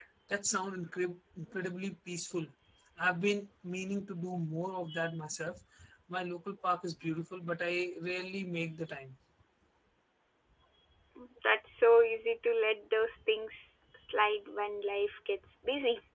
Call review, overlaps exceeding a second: none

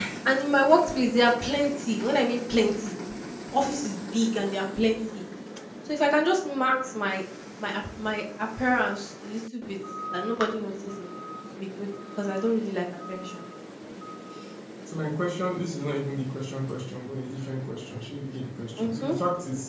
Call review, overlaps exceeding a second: none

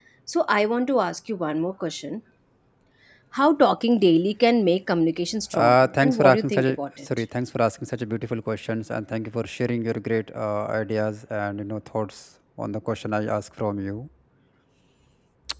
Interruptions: present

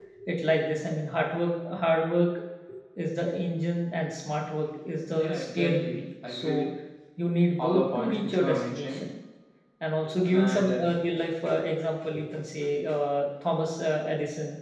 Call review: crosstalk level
present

